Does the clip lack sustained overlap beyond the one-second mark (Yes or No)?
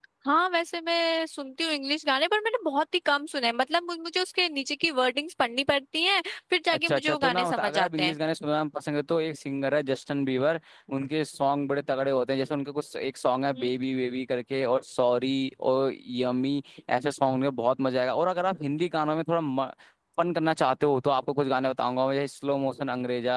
No